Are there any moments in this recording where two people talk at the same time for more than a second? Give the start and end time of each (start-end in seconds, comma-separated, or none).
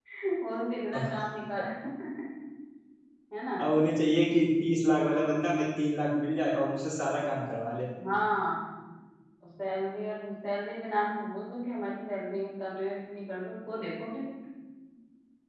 none